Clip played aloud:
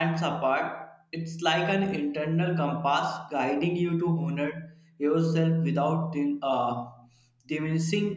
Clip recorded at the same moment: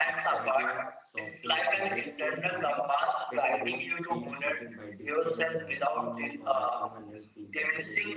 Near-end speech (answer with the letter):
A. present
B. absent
A